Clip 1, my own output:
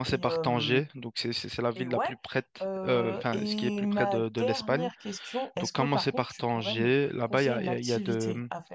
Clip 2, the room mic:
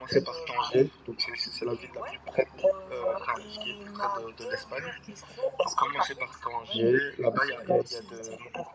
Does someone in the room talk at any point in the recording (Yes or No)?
No